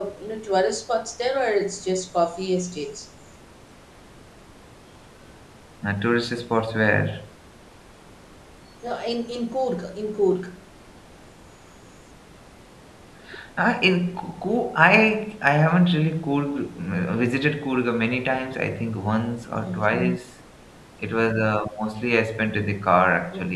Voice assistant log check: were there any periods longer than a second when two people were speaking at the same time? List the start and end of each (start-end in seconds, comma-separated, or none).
none